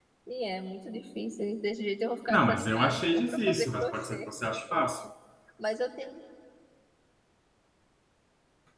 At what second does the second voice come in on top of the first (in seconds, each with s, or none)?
2.3 s